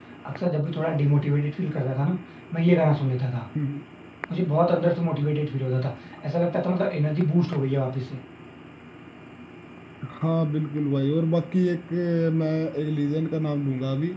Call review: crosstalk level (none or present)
none